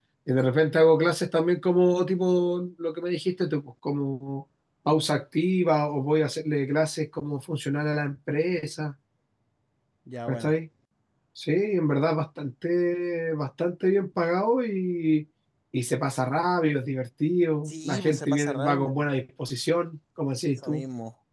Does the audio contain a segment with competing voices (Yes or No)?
Yes